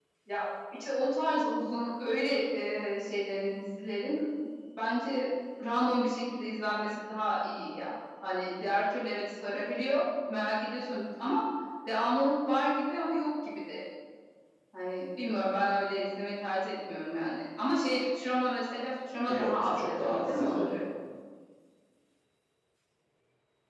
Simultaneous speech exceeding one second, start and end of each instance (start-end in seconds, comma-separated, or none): 19.3-20.8